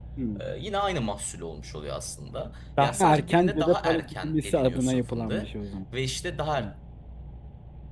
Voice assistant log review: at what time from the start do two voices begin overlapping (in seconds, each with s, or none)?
2.8 s